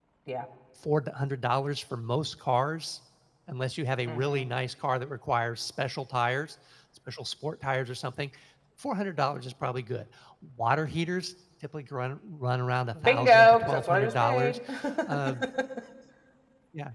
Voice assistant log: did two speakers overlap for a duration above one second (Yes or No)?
Yes